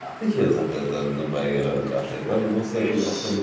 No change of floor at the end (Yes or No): Yes